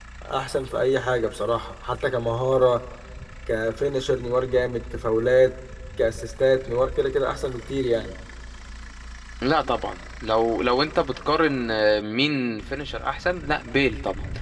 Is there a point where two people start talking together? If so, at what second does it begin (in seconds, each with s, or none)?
none